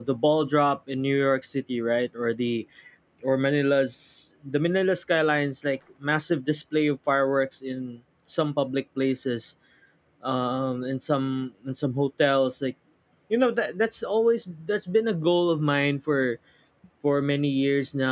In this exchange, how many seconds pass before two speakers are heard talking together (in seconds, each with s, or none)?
none